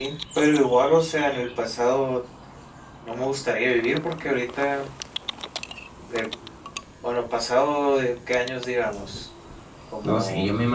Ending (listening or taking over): taking over